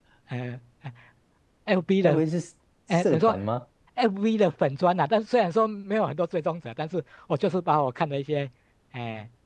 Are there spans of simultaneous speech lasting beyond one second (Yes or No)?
No